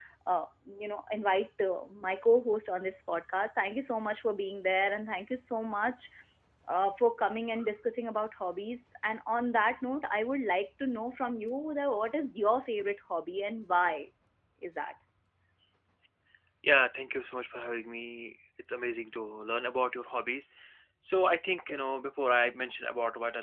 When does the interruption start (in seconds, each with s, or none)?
none